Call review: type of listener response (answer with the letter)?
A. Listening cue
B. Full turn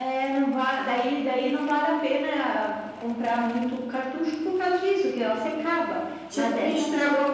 B